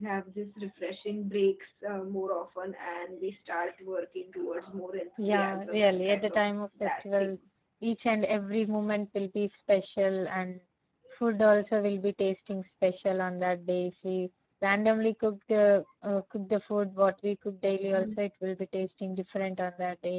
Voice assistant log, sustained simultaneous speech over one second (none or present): present